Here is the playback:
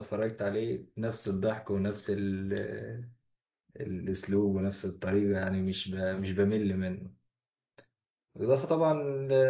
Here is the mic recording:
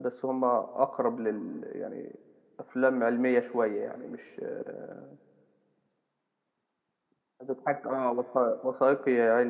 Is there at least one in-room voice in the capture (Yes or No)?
Yes